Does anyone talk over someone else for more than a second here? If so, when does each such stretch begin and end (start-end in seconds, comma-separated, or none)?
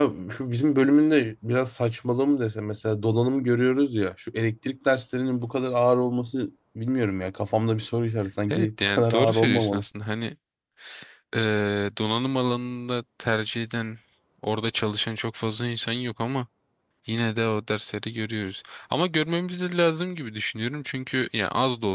8.5-9.8